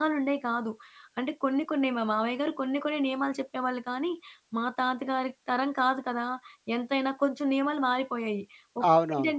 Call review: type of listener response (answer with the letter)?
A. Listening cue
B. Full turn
A